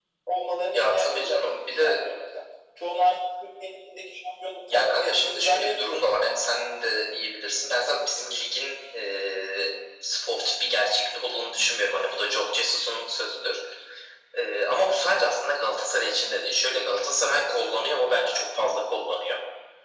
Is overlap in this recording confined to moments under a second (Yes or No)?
No